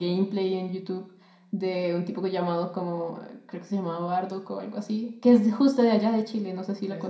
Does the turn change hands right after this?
Yes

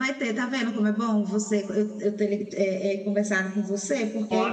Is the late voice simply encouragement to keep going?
Yes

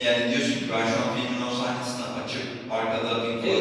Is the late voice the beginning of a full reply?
Yes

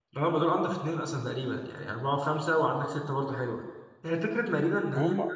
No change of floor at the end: Yes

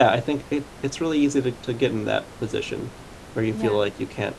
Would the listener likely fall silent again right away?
Yes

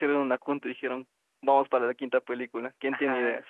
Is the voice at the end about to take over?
Yes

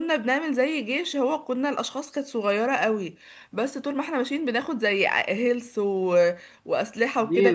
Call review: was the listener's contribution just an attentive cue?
No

